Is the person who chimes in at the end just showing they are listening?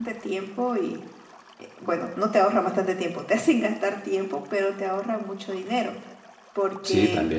Yes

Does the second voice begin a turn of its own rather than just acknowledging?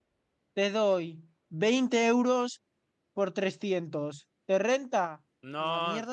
Yes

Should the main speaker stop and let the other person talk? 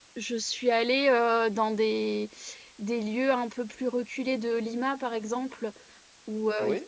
No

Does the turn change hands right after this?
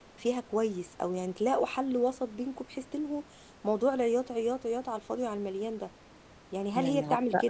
No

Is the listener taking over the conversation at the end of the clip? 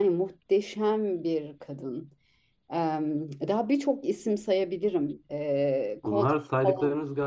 Yes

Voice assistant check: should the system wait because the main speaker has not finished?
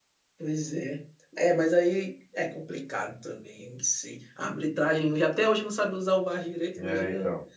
Yes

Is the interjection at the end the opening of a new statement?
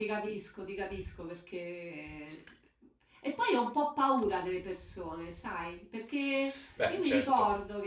No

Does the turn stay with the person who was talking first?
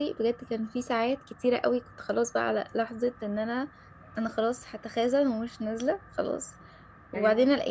Yes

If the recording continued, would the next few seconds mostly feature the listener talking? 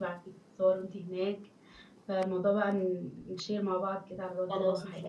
Yes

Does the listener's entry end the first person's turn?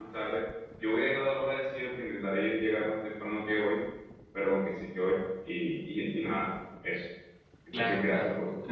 Yes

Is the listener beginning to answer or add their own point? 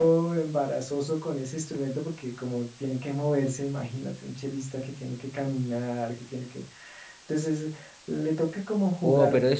Yes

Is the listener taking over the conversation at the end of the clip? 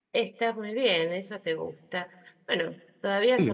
No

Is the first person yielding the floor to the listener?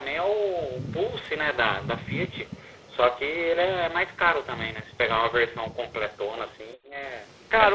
Yes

